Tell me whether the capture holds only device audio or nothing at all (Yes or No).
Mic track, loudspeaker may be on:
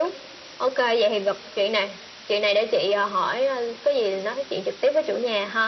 Yes